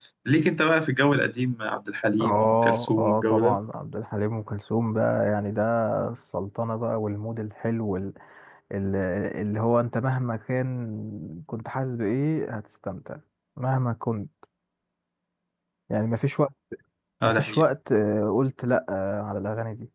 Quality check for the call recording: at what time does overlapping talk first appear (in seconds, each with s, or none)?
2.2 s